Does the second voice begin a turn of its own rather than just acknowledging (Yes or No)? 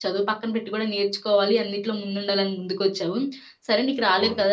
No